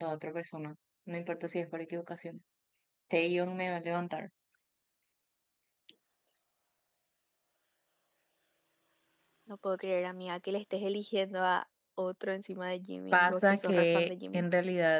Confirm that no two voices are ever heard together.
No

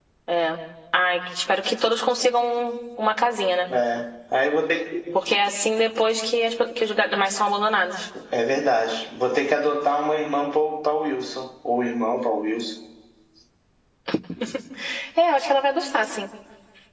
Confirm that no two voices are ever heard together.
Yes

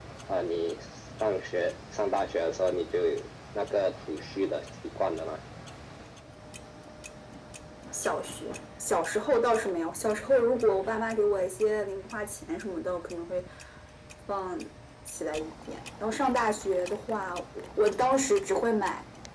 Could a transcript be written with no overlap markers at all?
Yes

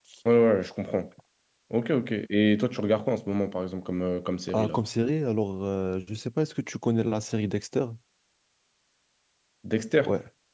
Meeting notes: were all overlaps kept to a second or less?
Yes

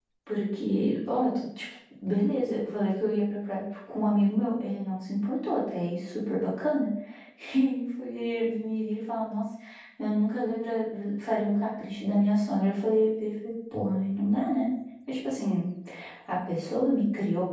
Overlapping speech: No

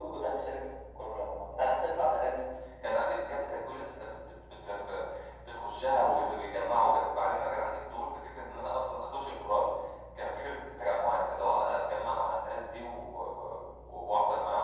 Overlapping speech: No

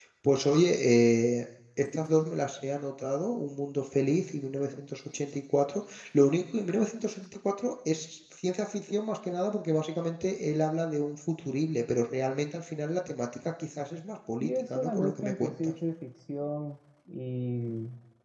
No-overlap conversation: No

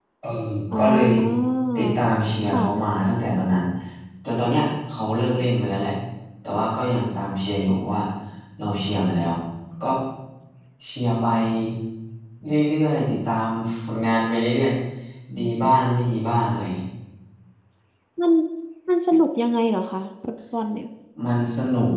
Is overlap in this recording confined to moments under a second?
Yes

